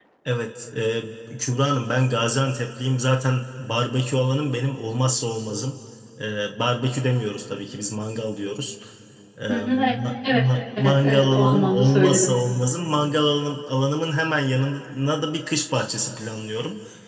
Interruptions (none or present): present